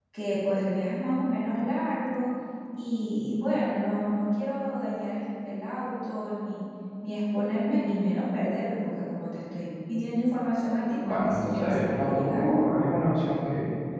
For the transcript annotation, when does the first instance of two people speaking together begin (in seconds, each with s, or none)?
11.0 s